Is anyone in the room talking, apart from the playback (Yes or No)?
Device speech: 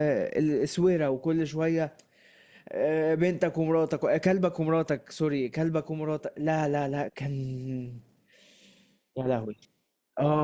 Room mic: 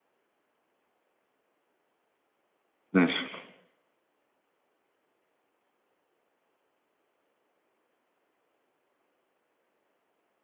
Yes